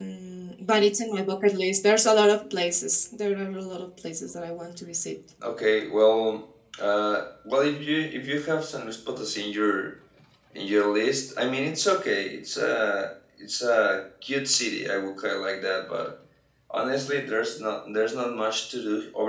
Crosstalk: none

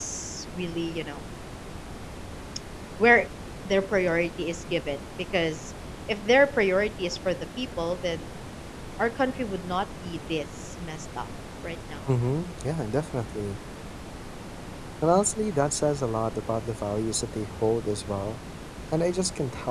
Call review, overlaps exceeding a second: none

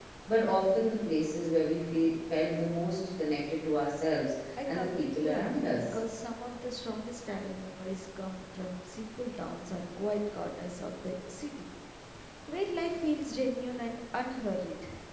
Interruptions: present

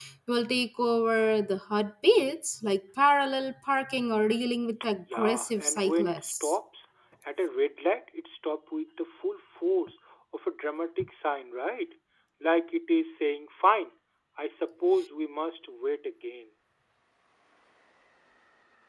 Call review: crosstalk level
present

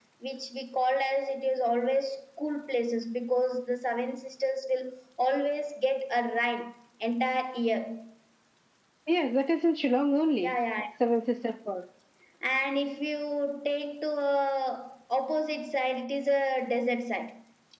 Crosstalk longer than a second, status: none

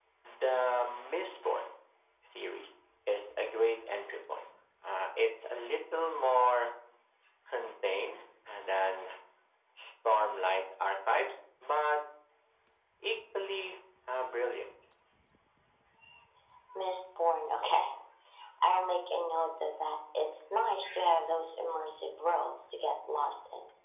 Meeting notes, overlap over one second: none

